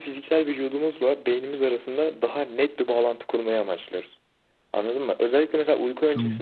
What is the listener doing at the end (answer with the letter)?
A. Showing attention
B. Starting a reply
A